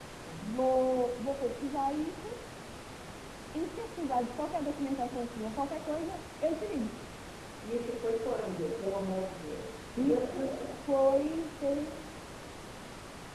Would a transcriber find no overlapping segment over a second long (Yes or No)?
Yes